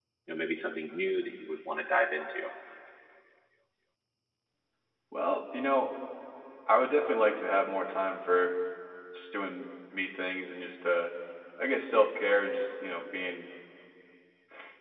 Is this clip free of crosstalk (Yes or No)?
Yes